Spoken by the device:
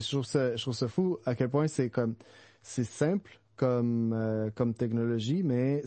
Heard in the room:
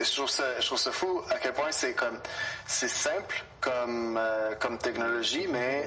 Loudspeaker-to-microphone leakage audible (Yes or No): Yes